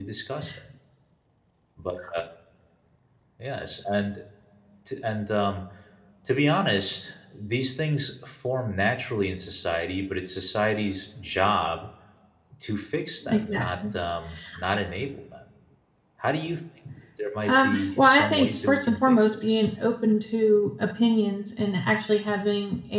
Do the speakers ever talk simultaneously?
Yes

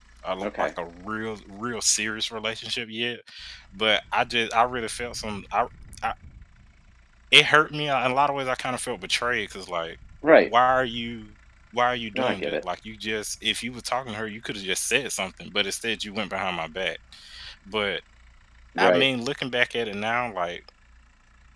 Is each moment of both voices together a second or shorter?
Yes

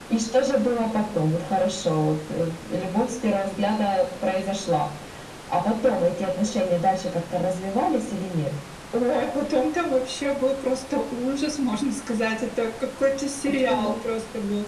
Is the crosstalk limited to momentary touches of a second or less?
Yes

